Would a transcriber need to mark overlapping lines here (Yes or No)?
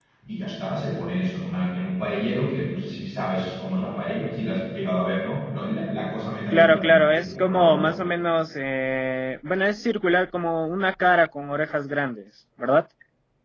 Yes